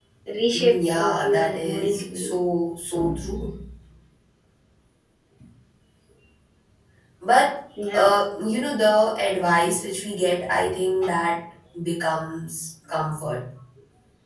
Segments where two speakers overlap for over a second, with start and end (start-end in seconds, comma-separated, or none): 0.5-2.3